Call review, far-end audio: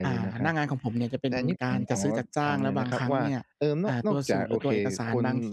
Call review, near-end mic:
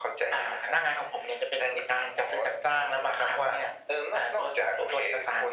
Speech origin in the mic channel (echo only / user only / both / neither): echo only